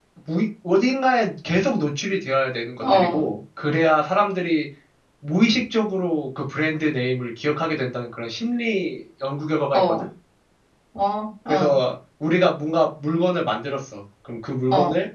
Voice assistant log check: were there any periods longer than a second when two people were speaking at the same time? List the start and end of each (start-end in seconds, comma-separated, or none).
none